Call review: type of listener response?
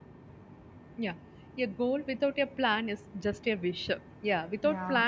listening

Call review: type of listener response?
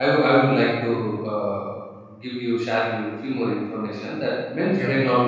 listening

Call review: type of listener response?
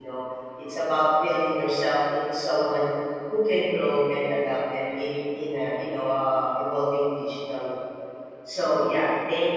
listening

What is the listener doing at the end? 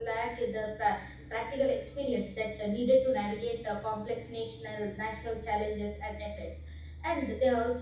listening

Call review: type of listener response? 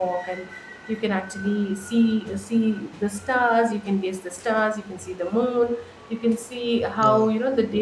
listening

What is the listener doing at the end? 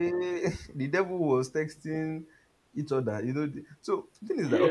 taking over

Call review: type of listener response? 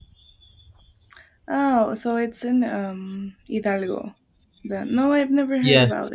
listening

